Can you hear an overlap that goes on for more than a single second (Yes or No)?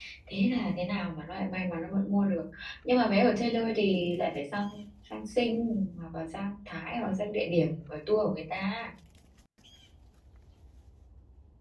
No